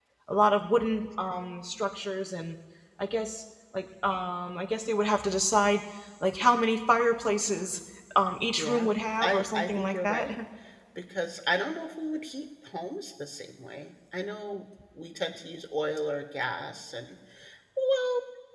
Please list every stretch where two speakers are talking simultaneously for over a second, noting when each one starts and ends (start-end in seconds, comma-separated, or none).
8.6-10.4